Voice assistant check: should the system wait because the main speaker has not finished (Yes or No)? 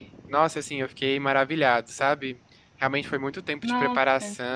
Yes